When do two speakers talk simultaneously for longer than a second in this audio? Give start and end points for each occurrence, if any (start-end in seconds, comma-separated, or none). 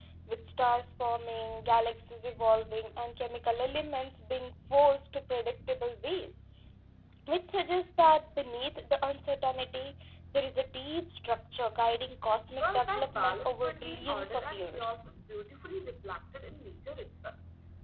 12.6-15.0